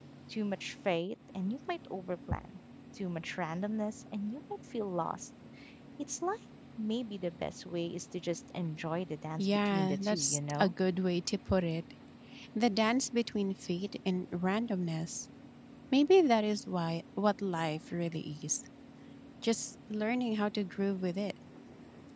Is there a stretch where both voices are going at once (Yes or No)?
Yes